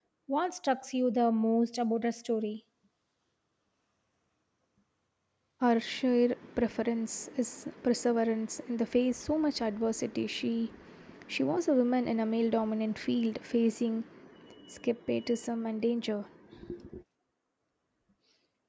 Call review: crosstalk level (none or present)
none